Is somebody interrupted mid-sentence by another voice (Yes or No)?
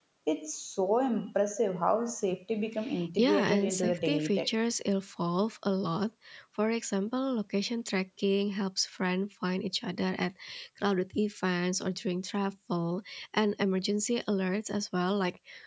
Yes